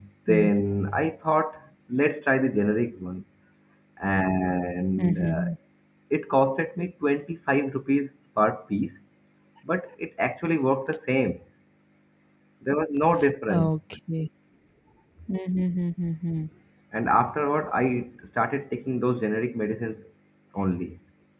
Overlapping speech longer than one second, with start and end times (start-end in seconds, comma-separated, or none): none